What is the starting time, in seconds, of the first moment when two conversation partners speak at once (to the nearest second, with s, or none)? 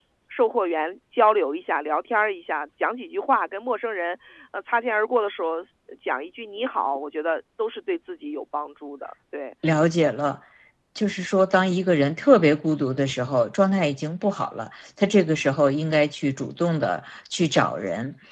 none